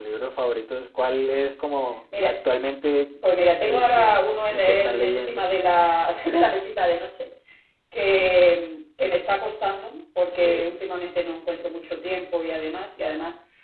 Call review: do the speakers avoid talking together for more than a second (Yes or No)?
No